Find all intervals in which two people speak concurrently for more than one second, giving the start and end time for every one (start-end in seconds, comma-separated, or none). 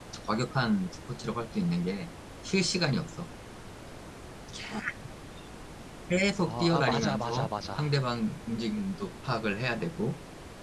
6.4-7.9